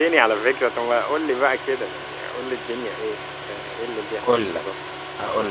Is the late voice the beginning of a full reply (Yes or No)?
Yes